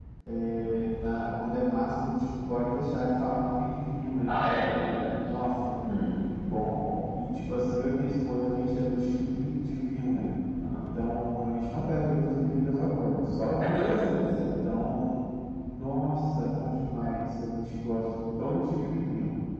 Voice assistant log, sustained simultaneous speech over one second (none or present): none